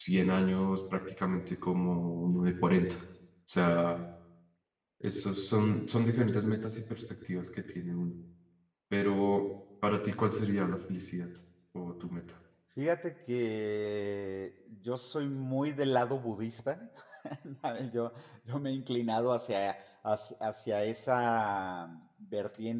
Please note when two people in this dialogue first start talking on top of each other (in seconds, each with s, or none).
none